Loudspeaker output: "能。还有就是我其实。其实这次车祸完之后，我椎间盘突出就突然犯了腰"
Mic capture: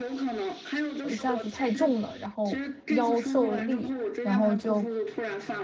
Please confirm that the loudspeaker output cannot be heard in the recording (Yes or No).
No